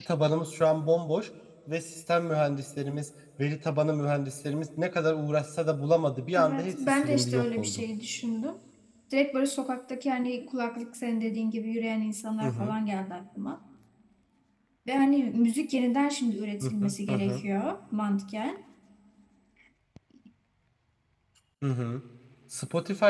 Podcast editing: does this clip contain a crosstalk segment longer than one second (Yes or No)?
Yes